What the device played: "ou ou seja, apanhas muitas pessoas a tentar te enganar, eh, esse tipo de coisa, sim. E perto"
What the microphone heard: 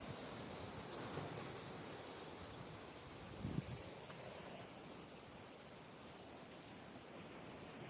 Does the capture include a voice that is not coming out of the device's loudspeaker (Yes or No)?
No